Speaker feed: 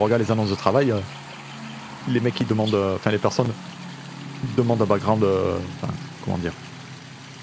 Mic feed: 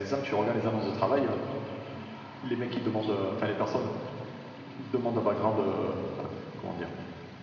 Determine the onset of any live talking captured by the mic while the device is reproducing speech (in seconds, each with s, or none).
none